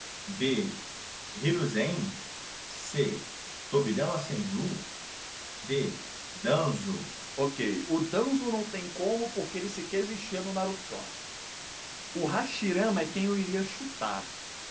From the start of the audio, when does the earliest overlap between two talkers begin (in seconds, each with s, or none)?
none